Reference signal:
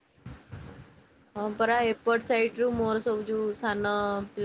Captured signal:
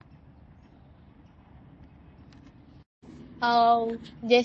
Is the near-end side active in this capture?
Yes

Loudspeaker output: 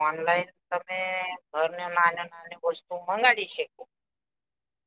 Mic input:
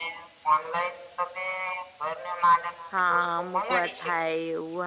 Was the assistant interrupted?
Yes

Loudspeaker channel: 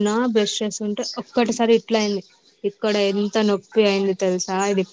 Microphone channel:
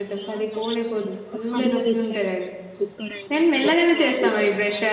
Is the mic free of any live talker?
No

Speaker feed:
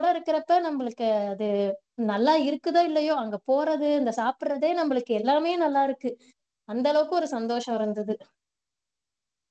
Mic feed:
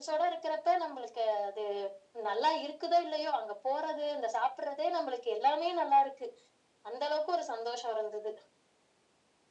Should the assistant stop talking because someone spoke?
No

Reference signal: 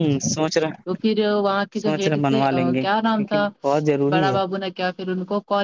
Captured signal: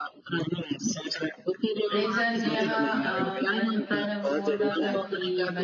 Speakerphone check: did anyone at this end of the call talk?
Yes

